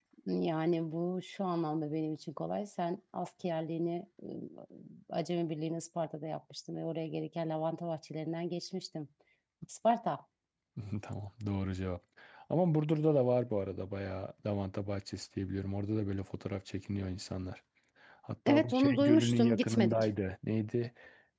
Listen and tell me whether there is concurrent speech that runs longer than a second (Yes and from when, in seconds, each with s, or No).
Yes, from 18.5 s